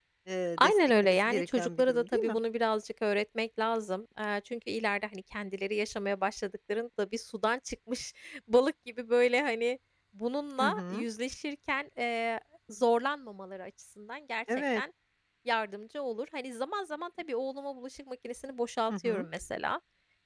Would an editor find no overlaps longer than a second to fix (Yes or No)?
No